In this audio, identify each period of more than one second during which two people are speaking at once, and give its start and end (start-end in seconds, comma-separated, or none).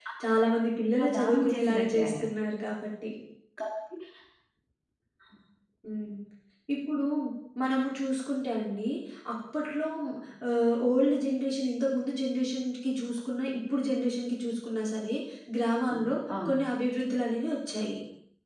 1.0-2.2